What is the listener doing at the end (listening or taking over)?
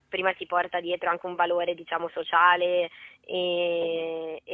listening